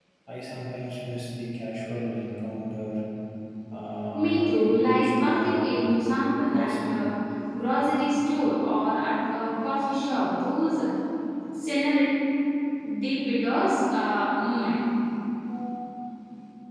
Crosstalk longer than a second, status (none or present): present